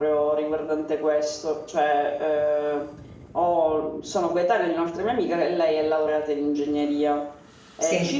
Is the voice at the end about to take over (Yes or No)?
No